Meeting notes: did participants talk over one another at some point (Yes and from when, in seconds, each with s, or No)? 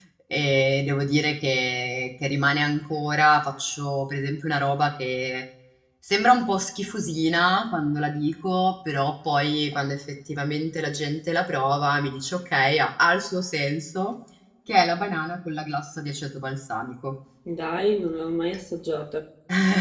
No